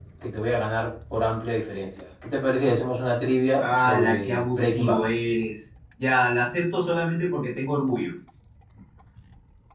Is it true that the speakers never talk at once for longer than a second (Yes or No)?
No